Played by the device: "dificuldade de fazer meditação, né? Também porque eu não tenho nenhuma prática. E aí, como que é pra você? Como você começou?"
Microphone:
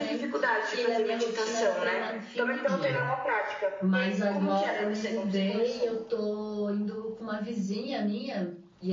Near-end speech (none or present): present